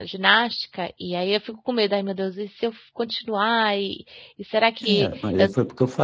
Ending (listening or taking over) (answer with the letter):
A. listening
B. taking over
B